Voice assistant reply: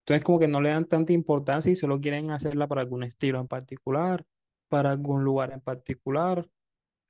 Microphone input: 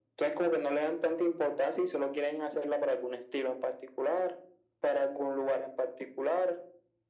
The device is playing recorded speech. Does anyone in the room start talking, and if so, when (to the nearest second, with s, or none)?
none